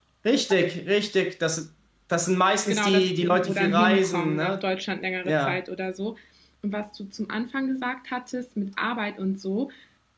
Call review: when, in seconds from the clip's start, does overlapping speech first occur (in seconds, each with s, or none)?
2.7 s